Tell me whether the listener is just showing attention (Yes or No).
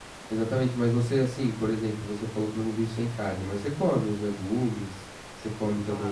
No